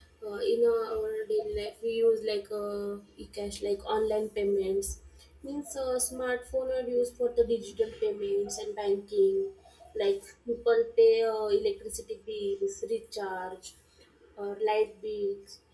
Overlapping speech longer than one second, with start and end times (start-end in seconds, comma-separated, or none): none